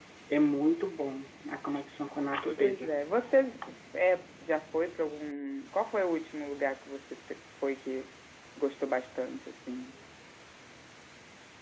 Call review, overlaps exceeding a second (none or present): none